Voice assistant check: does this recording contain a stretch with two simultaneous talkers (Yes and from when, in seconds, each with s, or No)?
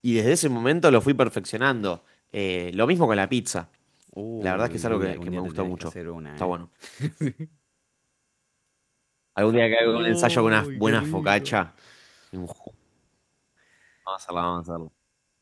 Yes, from 4.4 s